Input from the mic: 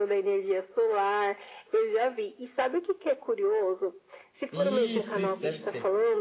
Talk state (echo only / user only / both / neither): both